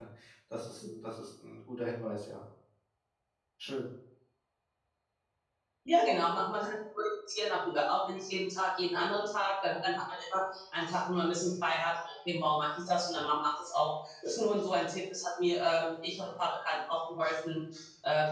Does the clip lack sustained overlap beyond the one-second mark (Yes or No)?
Yes